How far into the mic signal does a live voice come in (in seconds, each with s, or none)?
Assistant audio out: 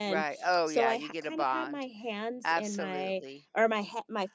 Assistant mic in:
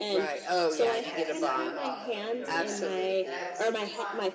1.0 s